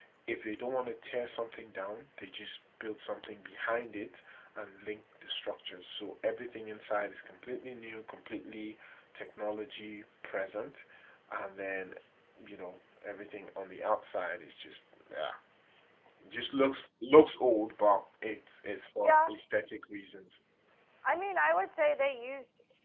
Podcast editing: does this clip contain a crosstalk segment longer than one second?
No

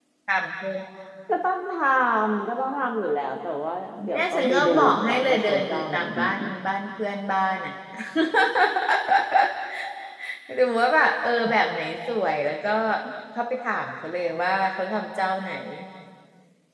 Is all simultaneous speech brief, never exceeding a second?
No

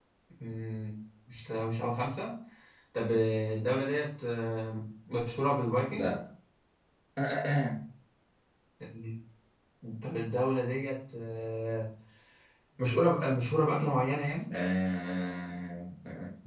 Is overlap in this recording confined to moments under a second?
Yes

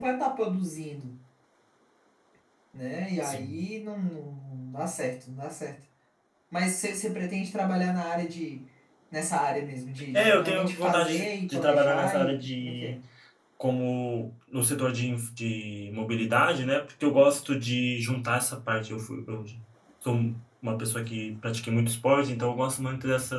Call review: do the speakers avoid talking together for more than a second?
No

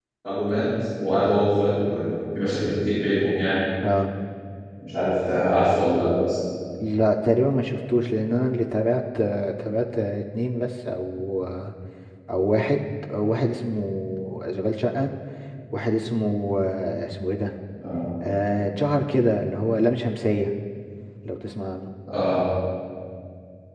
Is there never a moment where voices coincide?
Yes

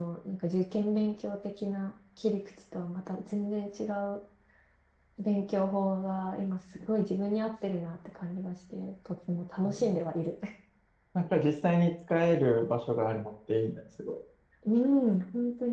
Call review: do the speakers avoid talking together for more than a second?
Yes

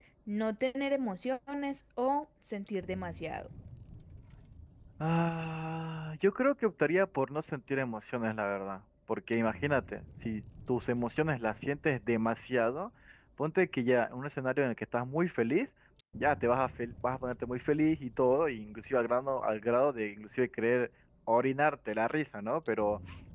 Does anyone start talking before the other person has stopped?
No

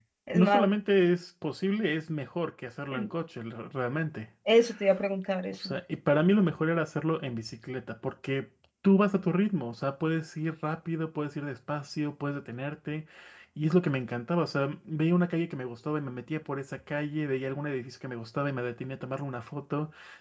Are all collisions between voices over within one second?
Yes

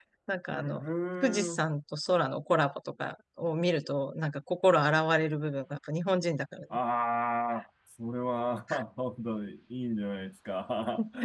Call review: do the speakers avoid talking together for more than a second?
Yes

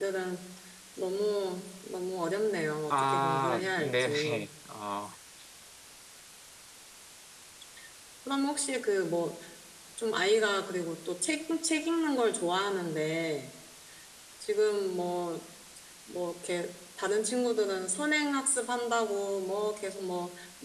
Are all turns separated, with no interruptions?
No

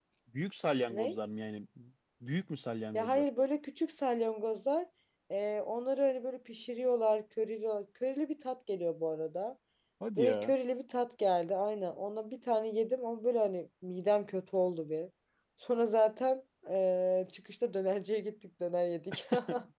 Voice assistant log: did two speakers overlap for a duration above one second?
No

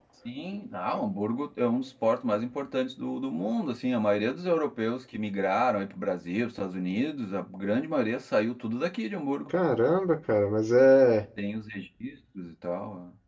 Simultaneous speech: No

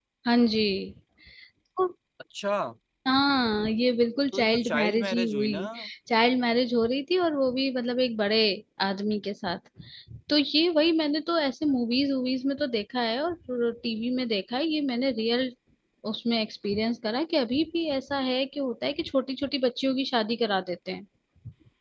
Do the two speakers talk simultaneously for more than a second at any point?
Yes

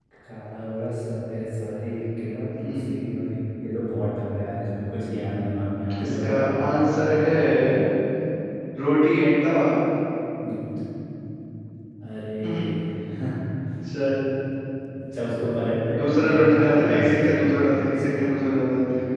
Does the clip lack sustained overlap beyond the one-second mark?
No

